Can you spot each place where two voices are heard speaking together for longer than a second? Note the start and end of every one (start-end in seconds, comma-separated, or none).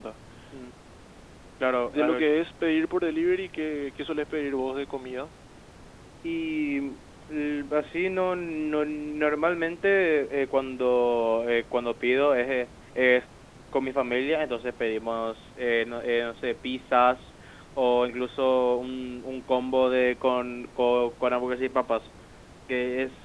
none